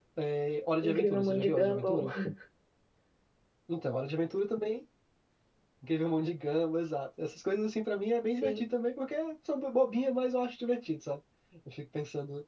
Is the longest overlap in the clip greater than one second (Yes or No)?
Yes